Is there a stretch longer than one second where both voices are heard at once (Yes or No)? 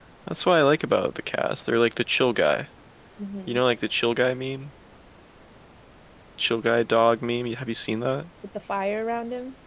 No